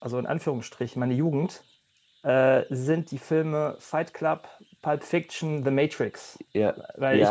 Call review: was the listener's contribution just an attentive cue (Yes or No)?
No